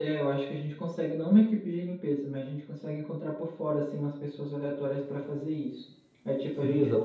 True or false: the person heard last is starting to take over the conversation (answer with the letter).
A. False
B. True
A